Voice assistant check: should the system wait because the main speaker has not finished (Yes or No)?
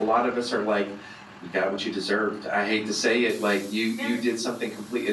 Yes